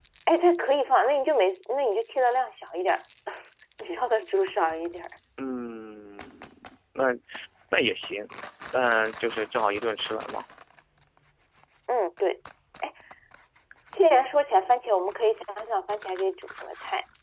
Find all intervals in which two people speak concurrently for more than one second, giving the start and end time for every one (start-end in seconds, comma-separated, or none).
none